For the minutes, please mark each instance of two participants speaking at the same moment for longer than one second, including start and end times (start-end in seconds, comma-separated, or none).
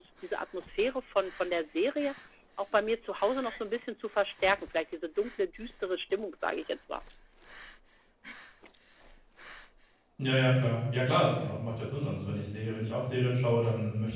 none